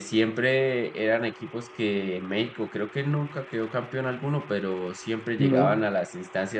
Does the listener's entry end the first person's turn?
No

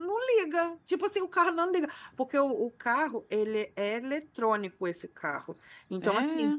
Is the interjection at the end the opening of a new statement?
No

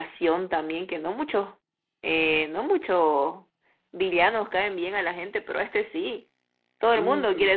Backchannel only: No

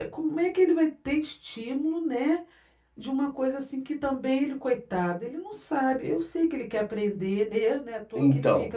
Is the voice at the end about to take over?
Yes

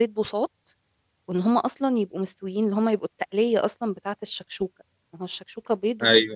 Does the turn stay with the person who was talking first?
Yes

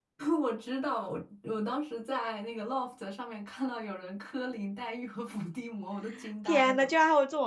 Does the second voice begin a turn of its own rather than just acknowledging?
Yes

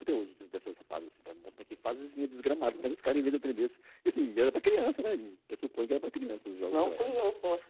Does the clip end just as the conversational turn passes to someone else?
Yes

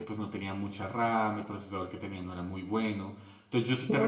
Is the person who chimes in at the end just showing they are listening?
Yes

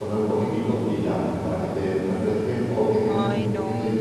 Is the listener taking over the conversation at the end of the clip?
No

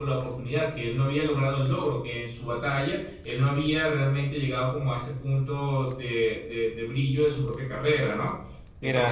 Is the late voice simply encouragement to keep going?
No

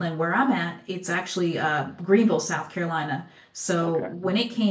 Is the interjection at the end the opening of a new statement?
No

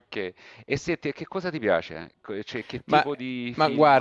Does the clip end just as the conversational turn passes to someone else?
Yes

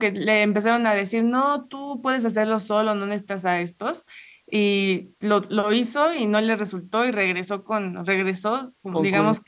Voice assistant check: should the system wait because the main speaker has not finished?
Yes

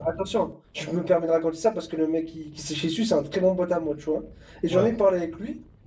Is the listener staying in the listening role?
Yes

